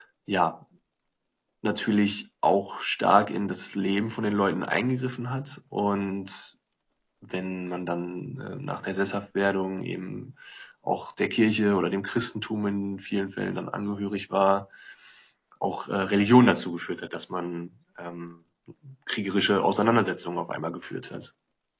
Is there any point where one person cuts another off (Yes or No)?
No